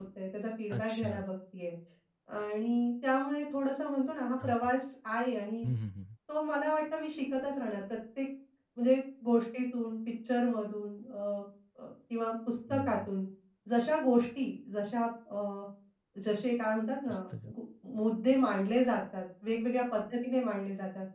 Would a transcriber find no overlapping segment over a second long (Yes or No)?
Yes